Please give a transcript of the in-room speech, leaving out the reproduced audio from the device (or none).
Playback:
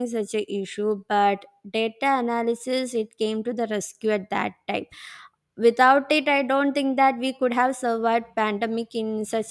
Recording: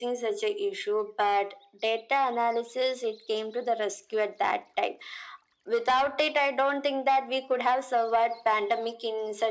none